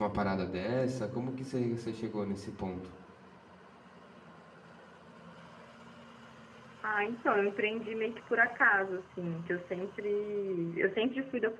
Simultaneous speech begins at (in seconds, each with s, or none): none